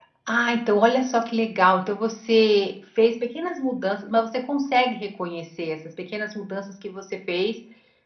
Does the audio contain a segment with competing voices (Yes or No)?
No